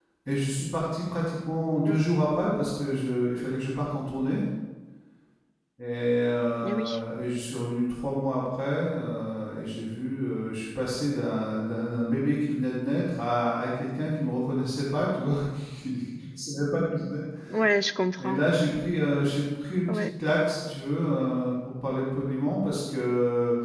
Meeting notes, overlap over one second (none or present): none